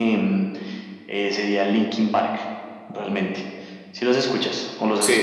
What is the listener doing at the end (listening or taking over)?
taking over